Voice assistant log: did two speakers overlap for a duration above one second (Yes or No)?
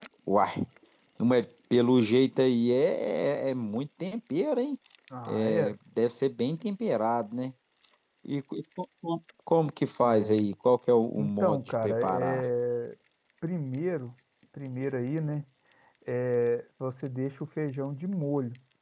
Yes